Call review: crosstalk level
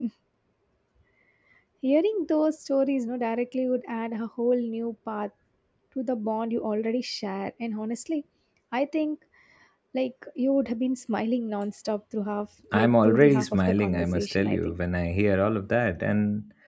present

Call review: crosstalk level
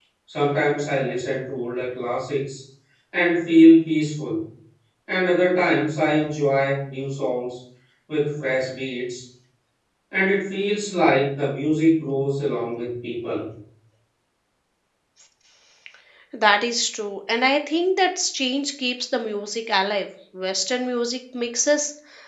none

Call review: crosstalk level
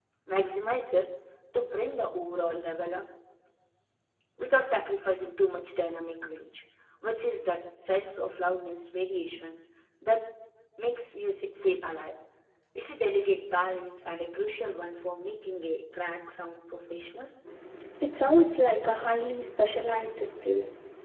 none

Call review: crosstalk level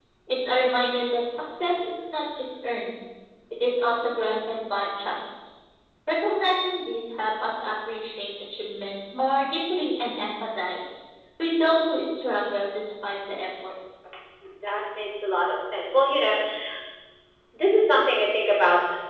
none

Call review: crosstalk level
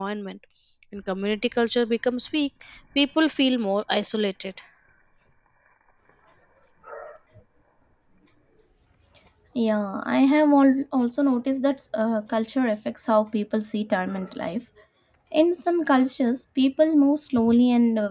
none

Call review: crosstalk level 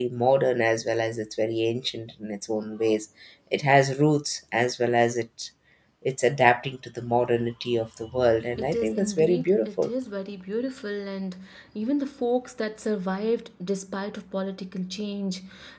present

